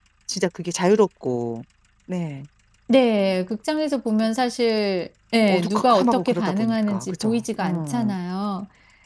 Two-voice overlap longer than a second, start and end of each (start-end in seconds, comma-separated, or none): 5.5-8.2